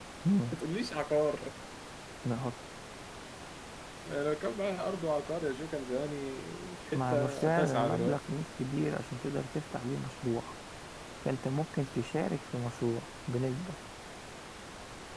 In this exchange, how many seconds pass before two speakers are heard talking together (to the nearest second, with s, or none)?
7 s